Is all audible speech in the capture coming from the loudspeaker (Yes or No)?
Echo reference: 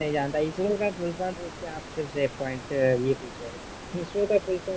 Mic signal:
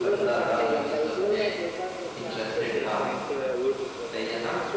No